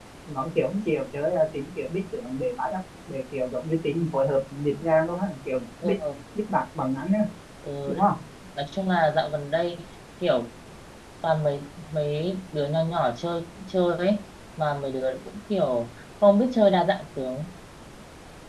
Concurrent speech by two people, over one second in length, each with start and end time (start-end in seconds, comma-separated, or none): none